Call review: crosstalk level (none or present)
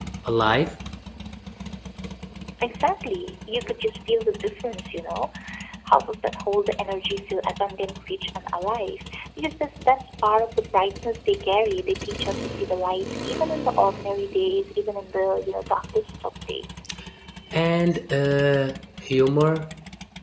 none